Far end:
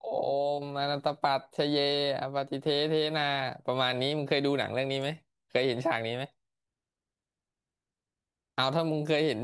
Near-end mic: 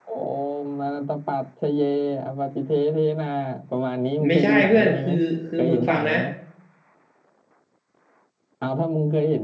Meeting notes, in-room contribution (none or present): present